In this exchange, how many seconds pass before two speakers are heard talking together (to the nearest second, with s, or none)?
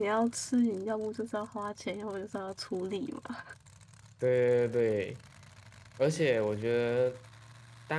none